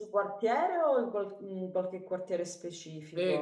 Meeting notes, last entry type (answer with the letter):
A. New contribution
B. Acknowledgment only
A